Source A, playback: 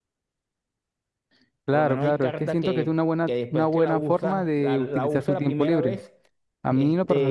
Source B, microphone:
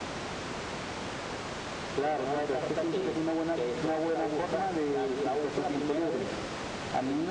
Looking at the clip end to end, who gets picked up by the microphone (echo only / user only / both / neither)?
echo only